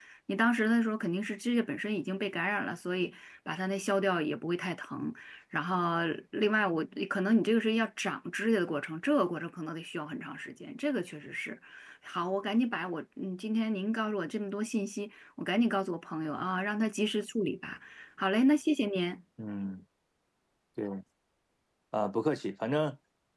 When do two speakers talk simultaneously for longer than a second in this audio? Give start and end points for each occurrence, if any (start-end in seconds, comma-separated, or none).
none